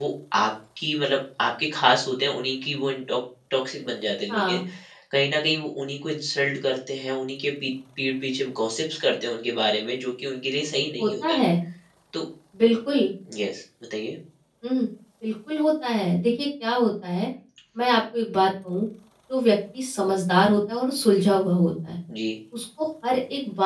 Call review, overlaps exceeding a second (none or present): none